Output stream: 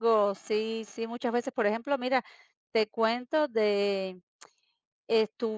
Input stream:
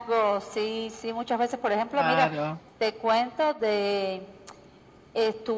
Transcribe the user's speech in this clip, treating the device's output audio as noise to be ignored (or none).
claro.